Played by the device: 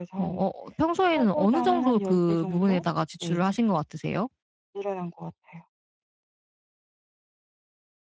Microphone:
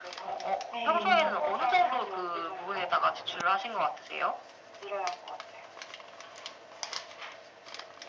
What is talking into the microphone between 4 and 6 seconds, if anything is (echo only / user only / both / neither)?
echo only